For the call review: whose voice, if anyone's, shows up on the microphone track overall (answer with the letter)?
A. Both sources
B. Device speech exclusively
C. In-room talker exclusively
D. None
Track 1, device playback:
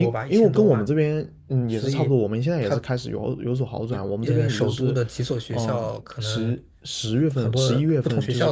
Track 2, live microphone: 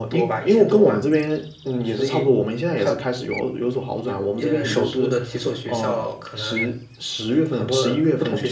B